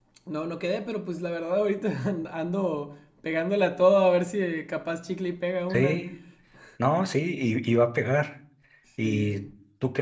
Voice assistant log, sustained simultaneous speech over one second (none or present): none